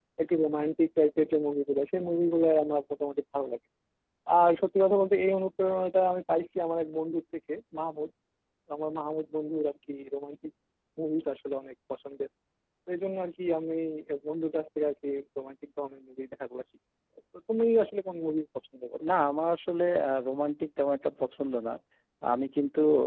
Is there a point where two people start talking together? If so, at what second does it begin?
none

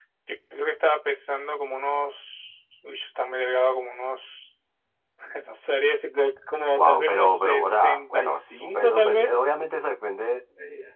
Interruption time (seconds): 6.8 s

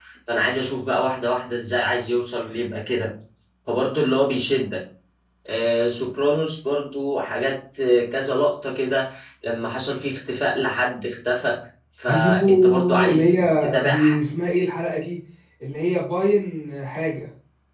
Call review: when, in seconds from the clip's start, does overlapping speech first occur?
12.1 s

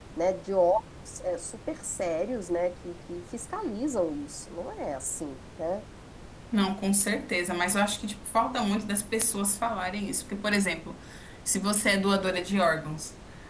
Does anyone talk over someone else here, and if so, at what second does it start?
none

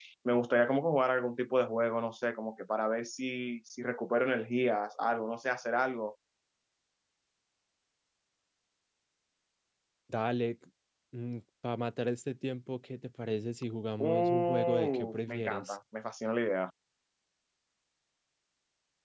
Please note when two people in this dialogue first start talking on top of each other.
14.0 s

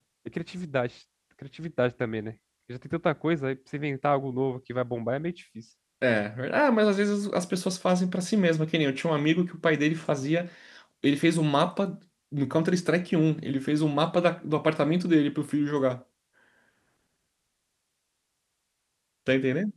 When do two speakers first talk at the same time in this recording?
none

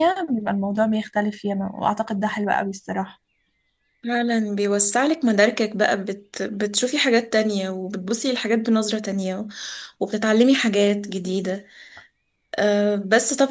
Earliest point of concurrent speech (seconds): none

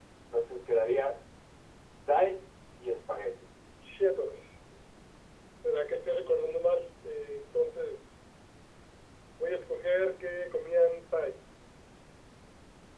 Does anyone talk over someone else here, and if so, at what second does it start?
none

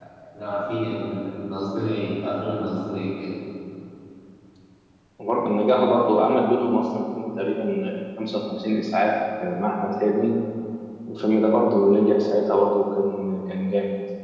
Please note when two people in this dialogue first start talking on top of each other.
none

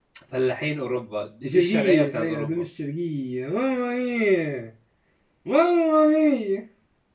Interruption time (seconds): 1.4 s

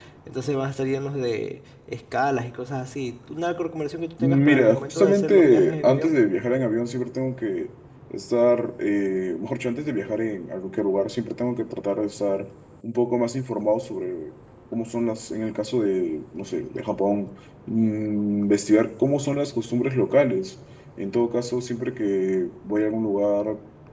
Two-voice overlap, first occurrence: 4.2 s

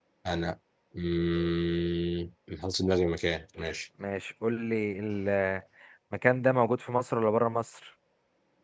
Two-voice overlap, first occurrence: none

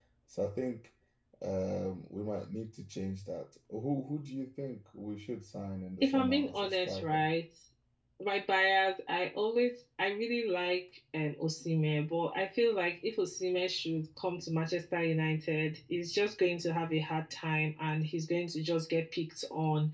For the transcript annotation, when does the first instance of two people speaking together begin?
6.0 s

